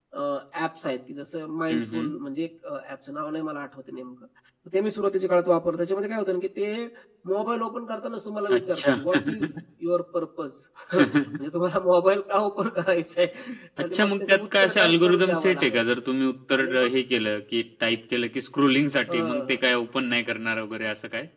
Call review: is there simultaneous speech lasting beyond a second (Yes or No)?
Yes